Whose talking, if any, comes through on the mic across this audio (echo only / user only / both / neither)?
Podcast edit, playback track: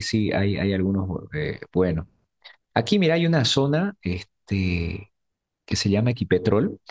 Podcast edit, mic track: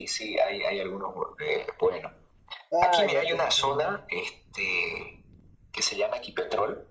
both